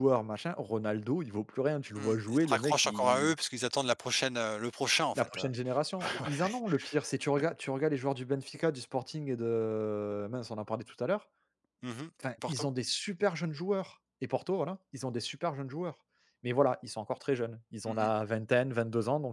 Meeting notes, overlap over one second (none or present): present